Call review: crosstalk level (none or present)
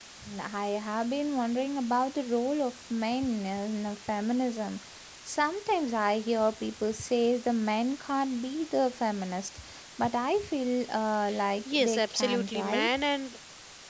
present